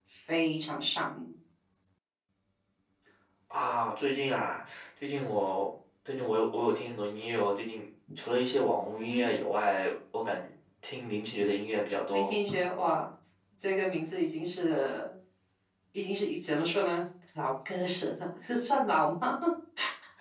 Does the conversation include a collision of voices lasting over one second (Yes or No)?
No